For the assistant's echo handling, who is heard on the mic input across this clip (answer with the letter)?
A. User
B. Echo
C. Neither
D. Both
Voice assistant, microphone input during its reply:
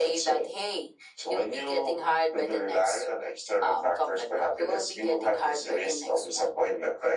B